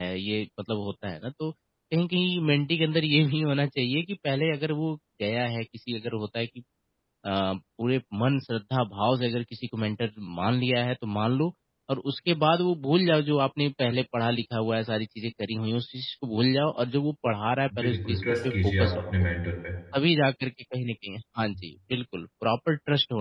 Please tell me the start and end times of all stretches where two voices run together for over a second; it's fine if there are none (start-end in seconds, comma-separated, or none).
17.8-19.0